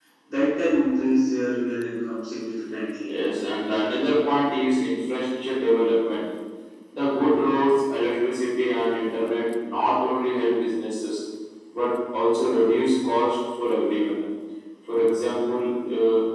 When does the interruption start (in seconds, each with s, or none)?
none